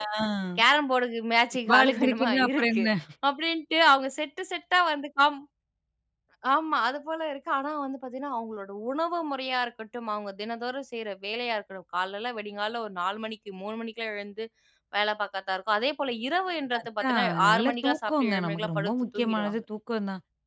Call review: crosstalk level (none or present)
present